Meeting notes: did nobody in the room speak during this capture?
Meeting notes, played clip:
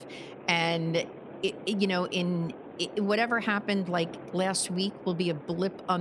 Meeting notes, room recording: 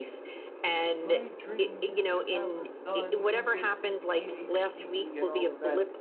No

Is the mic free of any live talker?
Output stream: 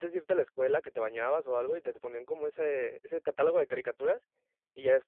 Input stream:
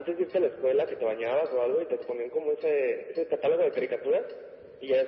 Yes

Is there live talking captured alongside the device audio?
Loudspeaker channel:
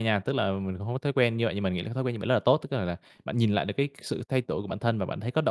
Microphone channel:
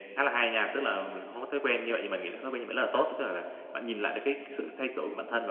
No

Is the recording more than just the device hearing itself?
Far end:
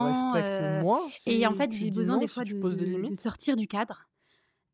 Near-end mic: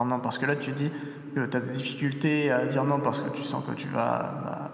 Yes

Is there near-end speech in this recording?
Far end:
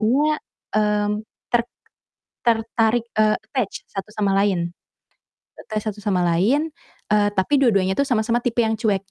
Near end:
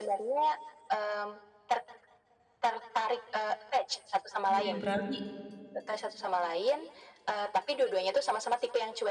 Yes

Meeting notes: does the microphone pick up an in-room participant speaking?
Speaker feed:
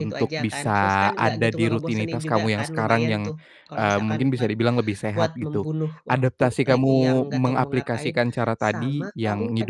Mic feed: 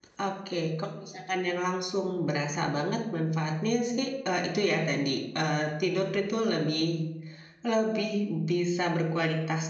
Yes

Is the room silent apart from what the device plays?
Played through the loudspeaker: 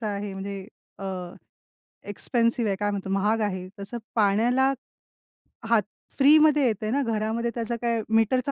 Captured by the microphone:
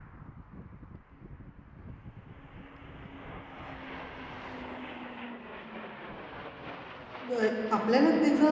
No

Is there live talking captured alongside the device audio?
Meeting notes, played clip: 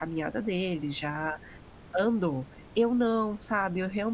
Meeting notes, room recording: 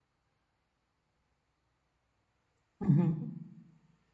Yes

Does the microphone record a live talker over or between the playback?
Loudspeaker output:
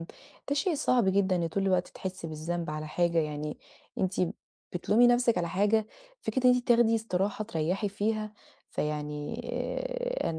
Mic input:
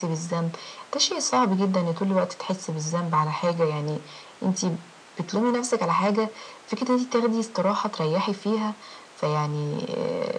No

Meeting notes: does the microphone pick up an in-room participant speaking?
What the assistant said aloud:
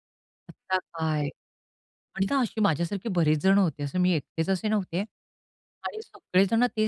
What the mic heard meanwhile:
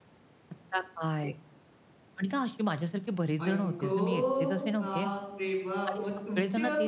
Yes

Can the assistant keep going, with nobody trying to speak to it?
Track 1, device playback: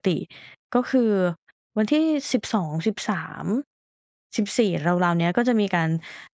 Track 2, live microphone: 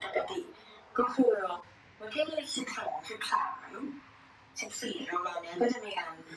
Yes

